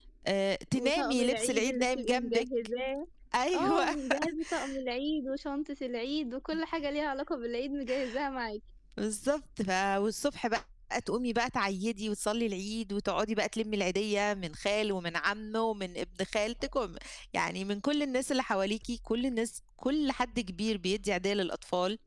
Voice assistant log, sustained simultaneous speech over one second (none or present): present